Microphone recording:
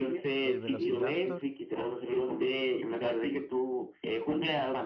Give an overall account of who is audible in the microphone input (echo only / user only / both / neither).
both